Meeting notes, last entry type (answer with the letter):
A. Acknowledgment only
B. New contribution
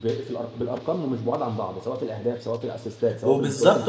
B